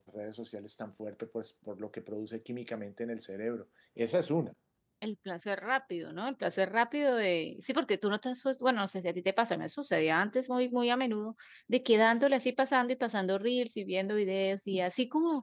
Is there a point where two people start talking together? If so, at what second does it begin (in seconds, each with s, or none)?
none